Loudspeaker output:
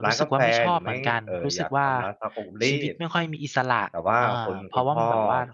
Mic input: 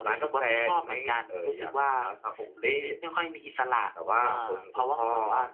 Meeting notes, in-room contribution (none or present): none